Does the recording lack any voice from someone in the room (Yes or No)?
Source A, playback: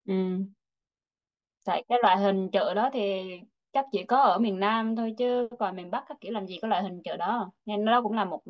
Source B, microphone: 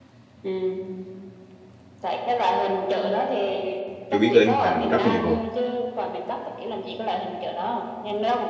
No